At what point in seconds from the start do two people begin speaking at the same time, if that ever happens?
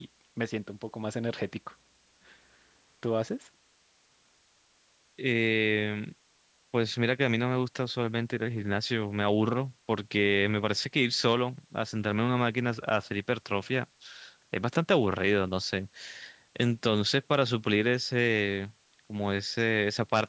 none

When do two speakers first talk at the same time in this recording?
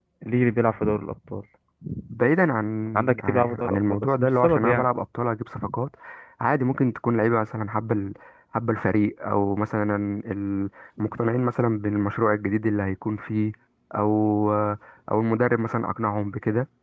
3.2 s

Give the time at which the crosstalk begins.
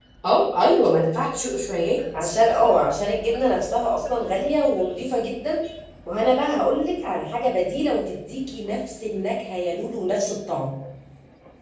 none

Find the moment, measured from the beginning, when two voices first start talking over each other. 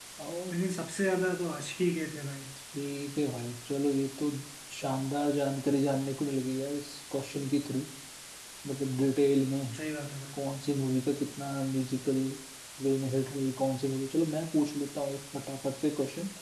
none

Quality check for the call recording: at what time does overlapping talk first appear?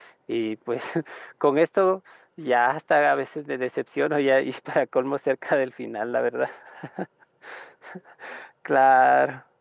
none

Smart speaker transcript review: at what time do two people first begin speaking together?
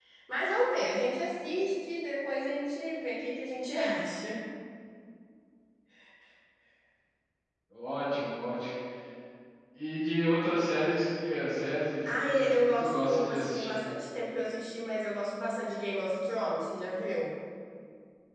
12.1 s

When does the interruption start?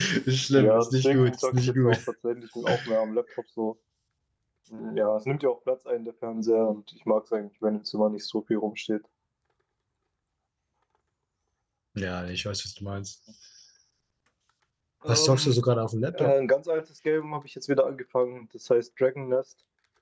0.5 s

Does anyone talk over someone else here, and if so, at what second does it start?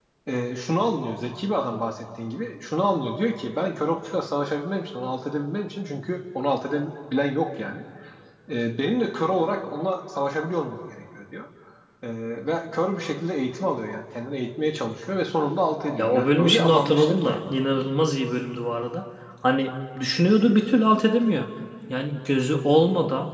16.0 s

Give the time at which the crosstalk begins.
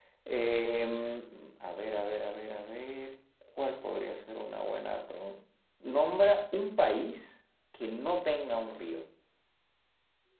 none

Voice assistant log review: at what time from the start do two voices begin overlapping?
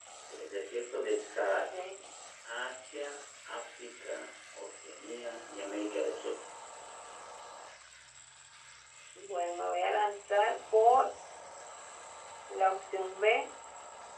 none

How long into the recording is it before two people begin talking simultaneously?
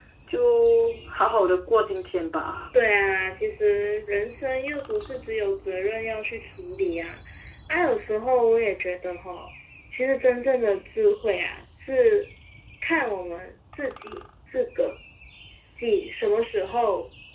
none

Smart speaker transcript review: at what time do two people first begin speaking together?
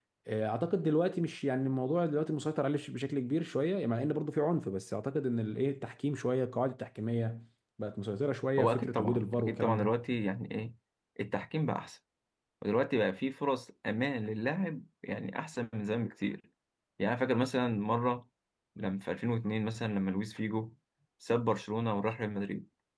8.6 s

